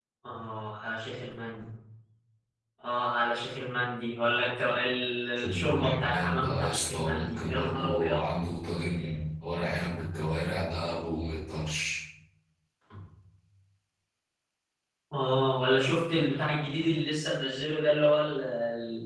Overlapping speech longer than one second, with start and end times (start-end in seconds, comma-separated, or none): 5.4-8.2